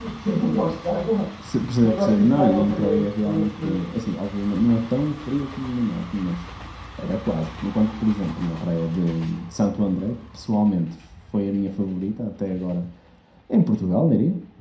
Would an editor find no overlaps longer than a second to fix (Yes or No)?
No